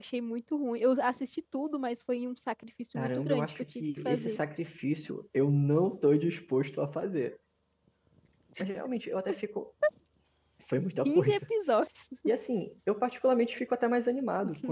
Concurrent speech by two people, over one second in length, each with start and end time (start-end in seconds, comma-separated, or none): 3.0-4.4